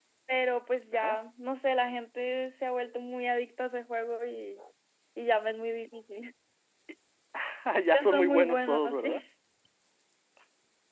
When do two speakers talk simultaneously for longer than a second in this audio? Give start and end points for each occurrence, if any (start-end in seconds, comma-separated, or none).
7.9-9.2